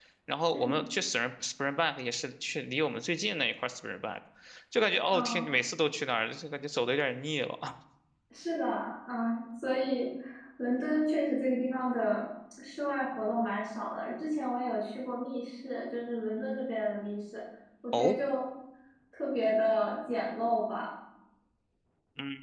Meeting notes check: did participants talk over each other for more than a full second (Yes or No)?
No